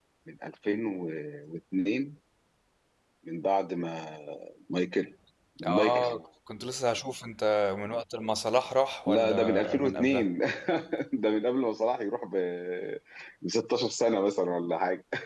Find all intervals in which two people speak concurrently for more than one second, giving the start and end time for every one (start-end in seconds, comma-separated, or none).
9.1-10.3